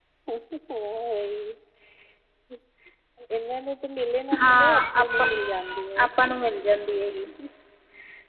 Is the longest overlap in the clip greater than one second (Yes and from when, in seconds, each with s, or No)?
Yes, from 4.3 s